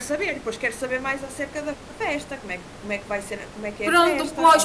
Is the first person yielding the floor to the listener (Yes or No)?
Yes